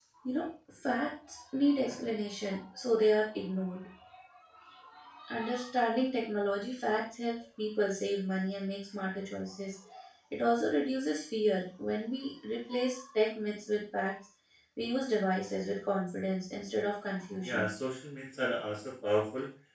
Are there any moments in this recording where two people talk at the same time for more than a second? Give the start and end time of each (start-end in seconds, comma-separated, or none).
none